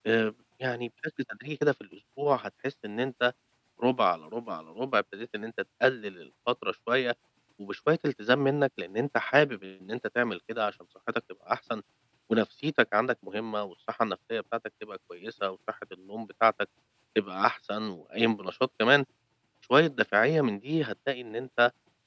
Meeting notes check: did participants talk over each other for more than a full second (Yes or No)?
No